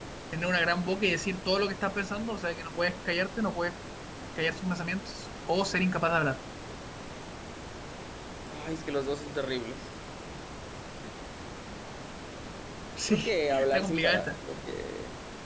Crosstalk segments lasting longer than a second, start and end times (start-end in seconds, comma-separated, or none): 13.1-14.3